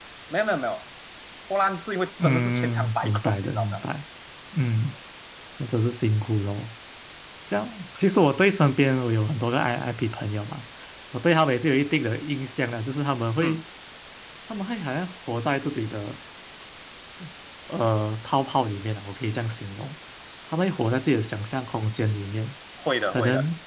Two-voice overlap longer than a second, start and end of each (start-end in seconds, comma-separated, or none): 2.2-3.8